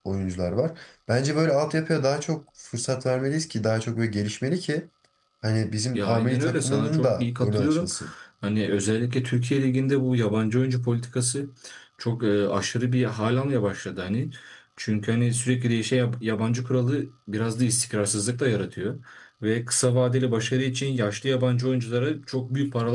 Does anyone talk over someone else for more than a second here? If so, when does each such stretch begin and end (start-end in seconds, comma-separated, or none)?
5.9-7.9